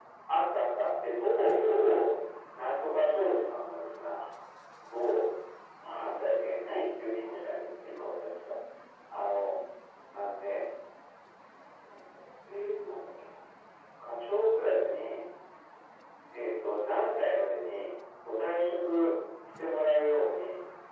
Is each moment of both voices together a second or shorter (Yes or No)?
Yes